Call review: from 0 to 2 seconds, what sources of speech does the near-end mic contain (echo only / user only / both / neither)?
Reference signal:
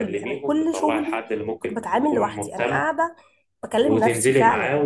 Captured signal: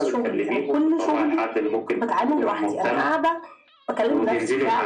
echo only